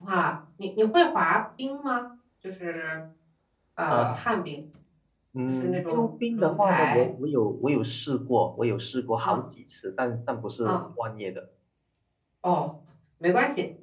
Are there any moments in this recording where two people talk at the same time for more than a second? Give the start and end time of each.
5.6-7.1

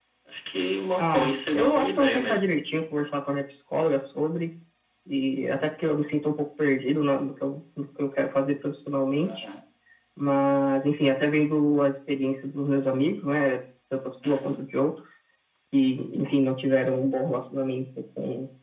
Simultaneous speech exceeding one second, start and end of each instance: 0.9-2.4

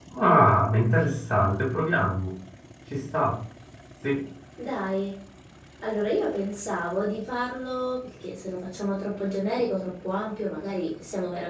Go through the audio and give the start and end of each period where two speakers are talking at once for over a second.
none

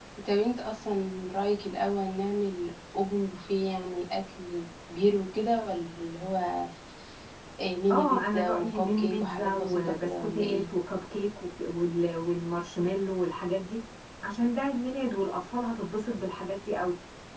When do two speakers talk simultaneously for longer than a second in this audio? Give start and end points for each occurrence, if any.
7.9-10.6

